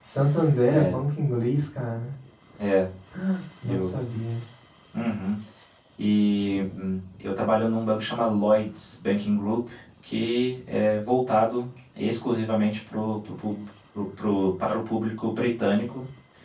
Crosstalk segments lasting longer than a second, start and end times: none

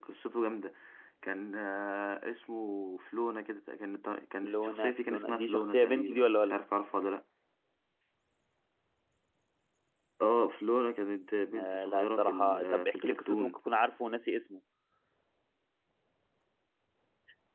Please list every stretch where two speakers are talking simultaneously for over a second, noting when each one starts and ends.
4.4-6.6, 11.6-13.6

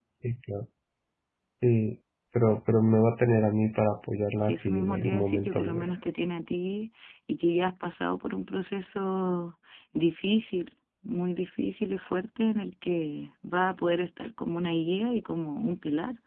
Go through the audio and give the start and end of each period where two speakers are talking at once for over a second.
4.4-5.9

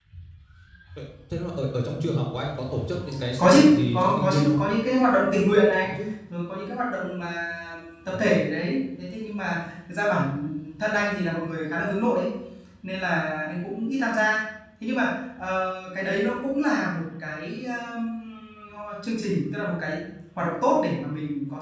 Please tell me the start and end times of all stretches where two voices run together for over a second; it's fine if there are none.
3.4-4.7

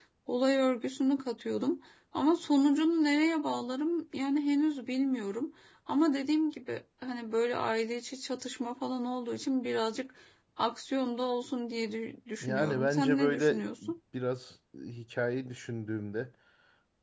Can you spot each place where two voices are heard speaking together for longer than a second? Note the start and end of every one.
12.4-13.6

